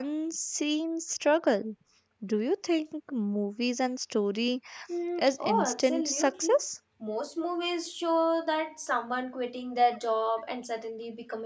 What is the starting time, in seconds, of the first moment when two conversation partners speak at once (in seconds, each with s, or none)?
5.2 s